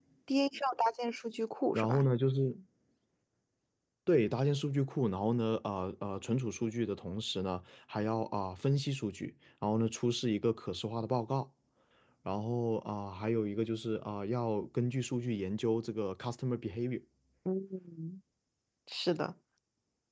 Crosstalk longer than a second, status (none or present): none